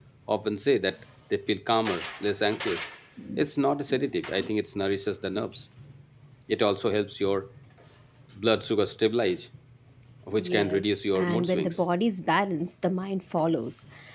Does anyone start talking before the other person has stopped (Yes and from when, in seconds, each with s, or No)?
Yes, from 10.4 s